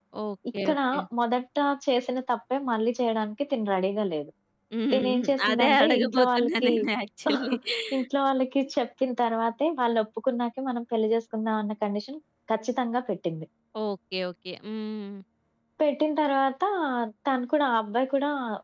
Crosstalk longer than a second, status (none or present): present